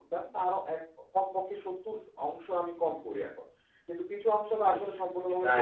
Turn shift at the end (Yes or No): Yes